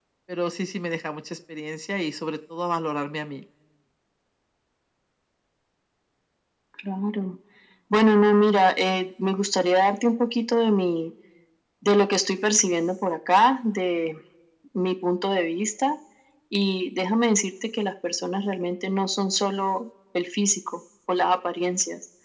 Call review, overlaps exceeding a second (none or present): none